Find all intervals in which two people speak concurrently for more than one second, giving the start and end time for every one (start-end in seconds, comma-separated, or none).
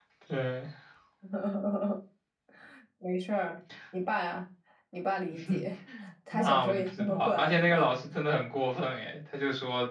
6.3-7.9